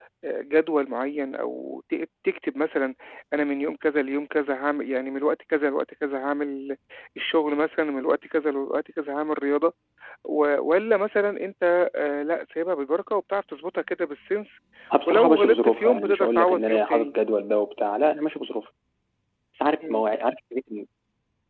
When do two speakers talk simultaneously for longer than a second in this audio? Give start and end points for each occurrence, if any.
15.1-17.1

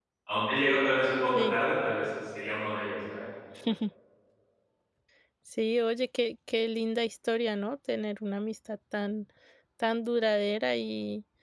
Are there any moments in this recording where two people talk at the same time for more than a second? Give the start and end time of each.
none

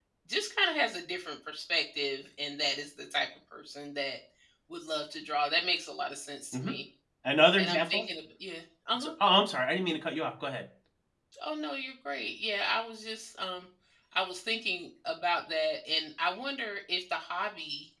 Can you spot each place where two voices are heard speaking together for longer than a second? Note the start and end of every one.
none

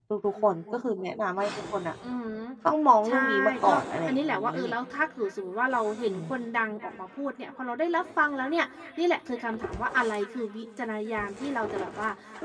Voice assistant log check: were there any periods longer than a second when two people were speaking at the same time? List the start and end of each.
3.1-4.5

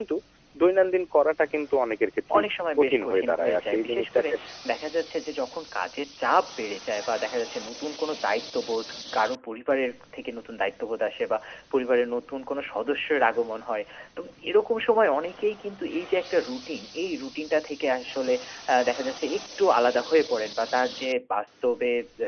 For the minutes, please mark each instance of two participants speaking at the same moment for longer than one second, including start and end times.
2.8-4.3

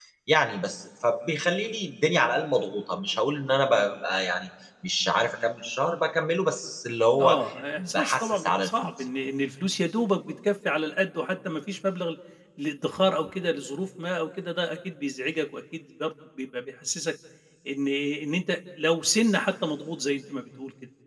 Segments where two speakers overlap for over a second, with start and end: 7.2-9.1

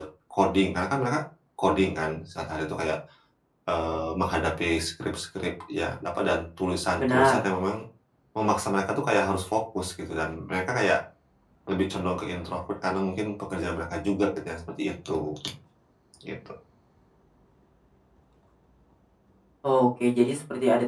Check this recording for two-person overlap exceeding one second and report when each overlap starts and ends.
none

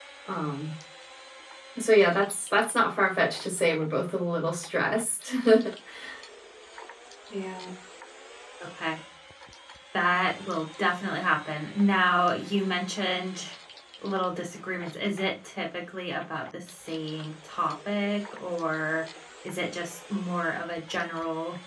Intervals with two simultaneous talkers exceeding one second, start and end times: none

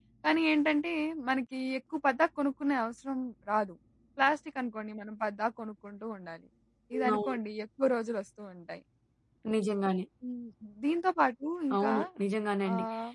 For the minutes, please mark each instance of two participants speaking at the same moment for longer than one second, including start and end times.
none

